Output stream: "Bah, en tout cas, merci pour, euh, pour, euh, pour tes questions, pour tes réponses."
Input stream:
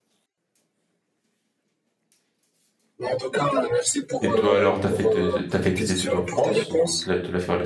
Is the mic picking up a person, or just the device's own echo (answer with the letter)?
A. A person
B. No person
A